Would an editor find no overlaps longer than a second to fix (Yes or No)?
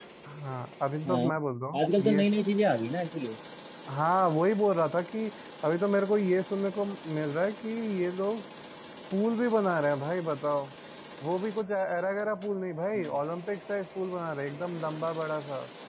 Yes